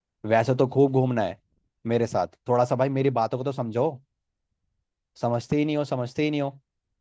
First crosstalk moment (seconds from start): none

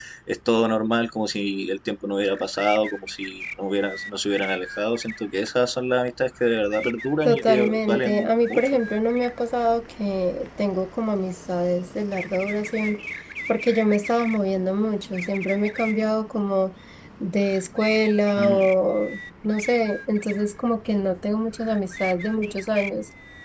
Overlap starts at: 7.2 s

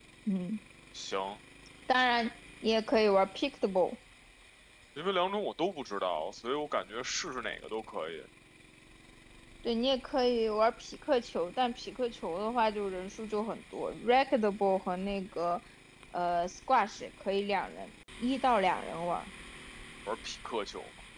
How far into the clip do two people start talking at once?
none

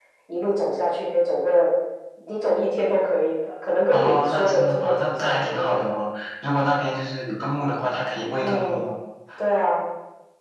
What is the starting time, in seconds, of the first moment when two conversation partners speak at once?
3.9 s

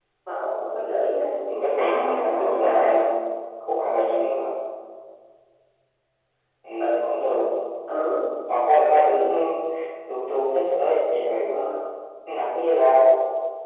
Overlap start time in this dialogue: 1.6 s

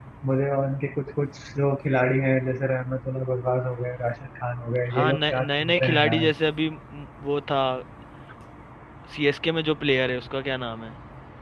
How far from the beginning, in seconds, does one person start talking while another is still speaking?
4.9 s

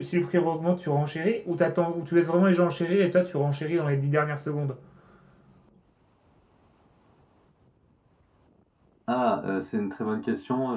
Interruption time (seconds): none

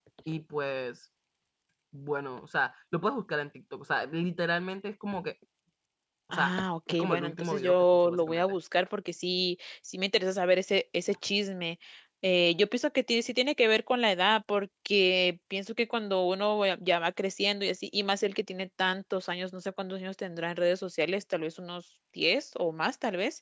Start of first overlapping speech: 6.3 s

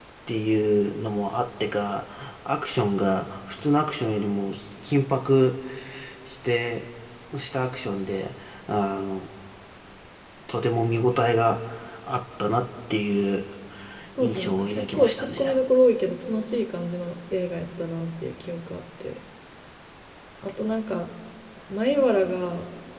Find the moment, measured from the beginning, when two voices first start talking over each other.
14.2 s

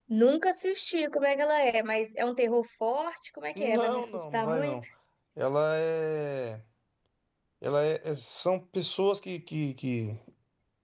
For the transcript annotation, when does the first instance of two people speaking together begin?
3.5 s

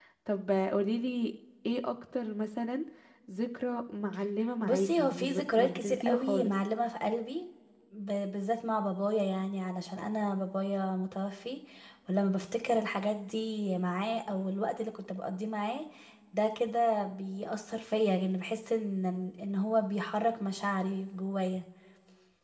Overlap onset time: 4.6 s

